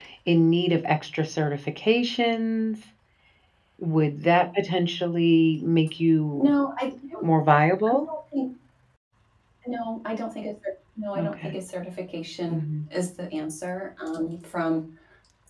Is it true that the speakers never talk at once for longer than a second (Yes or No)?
Yes